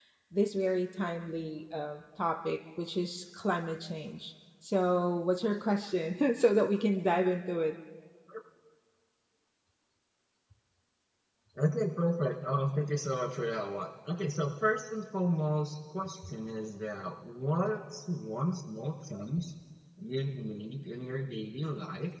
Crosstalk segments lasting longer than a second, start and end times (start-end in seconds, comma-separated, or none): none